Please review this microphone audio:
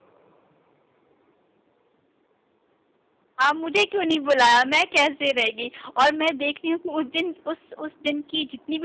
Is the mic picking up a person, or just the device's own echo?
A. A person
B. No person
A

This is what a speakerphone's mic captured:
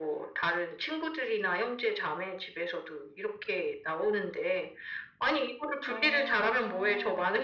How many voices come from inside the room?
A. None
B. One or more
B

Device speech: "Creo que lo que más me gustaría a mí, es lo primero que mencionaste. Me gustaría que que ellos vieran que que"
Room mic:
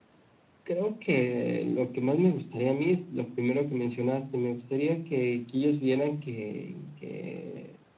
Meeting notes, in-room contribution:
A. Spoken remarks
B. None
B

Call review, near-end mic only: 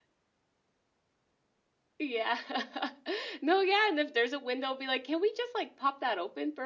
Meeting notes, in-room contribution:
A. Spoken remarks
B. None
B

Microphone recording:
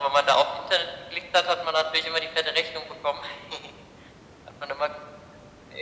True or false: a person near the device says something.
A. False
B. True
A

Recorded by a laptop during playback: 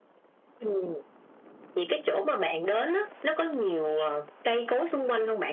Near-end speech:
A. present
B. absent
B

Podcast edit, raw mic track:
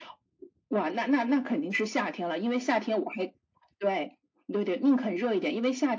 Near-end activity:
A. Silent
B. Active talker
A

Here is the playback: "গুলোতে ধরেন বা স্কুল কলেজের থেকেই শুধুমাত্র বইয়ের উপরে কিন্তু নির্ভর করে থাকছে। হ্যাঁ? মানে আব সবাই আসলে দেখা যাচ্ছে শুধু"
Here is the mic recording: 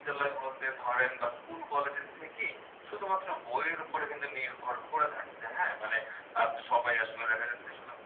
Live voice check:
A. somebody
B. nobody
B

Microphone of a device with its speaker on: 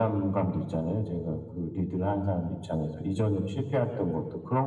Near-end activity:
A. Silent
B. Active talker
A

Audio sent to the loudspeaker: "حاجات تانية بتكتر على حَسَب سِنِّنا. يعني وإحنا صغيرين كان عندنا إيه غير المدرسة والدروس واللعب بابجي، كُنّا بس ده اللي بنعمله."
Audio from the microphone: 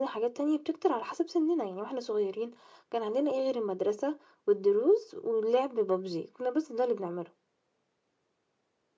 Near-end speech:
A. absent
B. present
A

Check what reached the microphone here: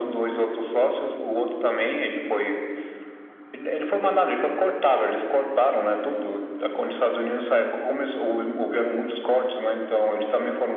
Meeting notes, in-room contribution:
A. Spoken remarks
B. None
B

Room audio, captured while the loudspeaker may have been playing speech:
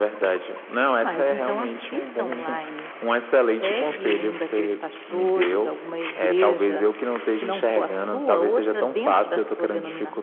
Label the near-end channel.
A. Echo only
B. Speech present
A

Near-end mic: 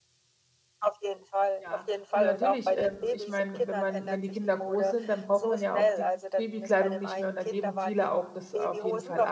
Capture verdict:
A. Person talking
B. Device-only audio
A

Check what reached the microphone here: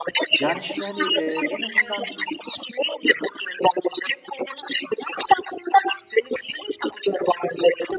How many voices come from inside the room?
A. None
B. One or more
B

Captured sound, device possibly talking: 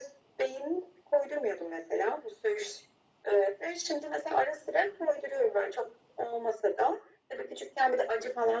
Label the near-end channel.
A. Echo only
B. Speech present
A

